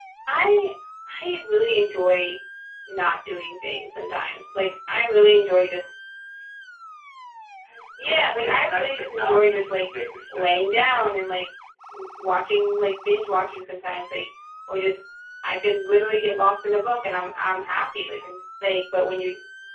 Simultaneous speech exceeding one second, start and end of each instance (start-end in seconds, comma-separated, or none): 8.0-9.8